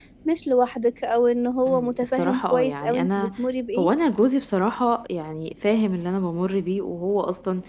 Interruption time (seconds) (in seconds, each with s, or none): 1.7 s